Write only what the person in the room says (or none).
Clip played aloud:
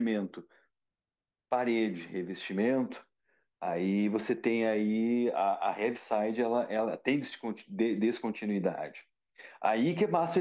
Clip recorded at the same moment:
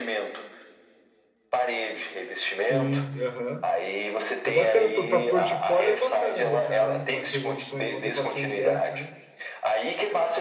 Sim, aham. É bacana, para portfólio é bacana botar, né? Umas resoluções, umas equações dessa, né?